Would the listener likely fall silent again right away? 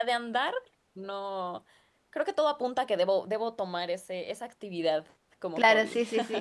No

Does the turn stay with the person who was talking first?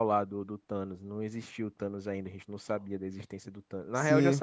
Yes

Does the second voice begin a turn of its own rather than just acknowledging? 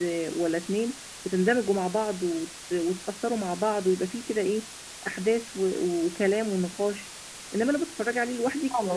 No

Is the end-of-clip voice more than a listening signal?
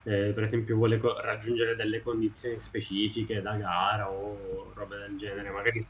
No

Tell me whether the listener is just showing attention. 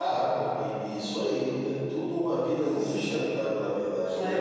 No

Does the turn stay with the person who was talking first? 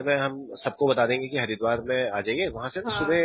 Yes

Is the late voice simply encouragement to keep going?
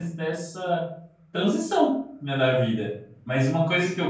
Yes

